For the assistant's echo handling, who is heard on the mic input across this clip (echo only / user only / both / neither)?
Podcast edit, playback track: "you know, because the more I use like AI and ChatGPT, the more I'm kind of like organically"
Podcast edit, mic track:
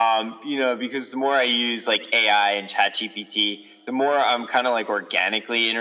echo only